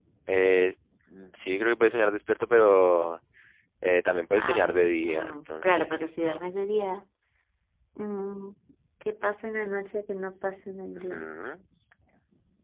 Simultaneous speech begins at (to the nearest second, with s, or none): 4 s